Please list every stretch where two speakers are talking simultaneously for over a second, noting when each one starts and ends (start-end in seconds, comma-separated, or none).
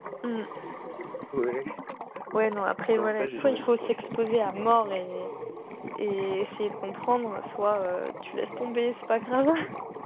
3.0-4.2